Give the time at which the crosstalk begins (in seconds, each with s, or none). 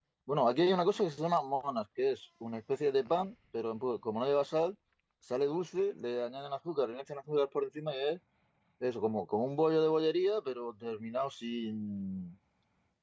none